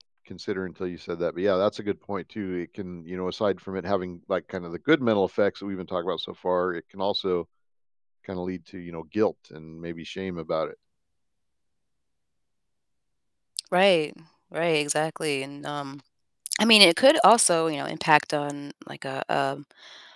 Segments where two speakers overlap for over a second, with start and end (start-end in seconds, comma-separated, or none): none